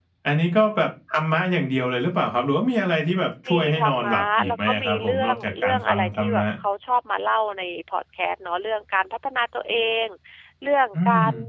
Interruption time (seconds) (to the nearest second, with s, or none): 3 s